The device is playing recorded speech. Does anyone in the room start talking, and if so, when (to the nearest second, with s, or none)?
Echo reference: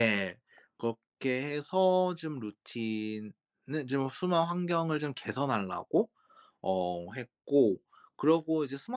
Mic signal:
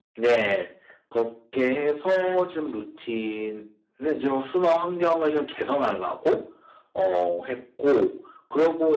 none